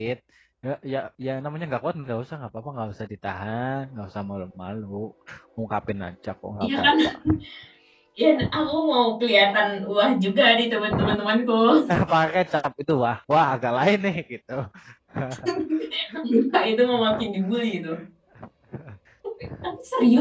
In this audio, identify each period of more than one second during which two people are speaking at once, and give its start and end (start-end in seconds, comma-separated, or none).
none